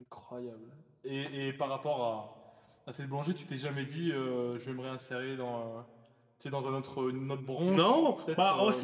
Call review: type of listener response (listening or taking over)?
taking over